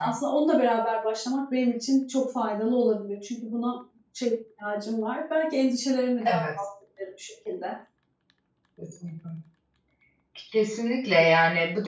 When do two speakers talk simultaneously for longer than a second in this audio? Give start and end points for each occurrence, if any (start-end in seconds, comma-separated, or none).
none